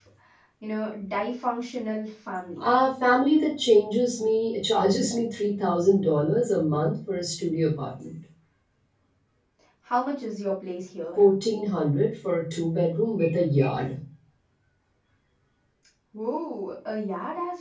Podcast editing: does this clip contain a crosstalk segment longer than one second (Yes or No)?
No